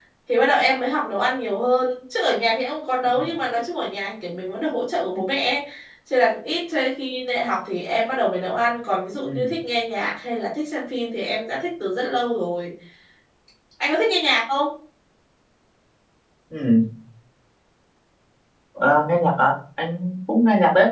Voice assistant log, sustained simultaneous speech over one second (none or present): none